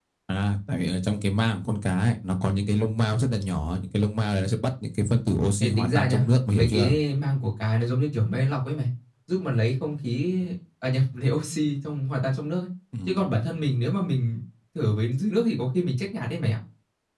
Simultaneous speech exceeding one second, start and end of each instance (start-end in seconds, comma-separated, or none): 5.6-6.9